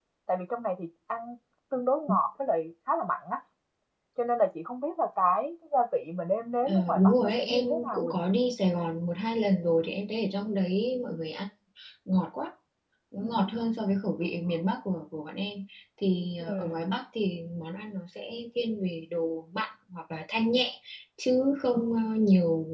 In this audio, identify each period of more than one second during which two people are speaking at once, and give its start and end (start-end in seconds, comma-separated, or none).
6.6-8.3